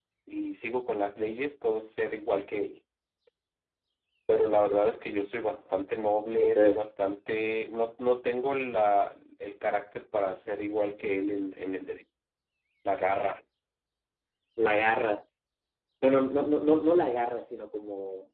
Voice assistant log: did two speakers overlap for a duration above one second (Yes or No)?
No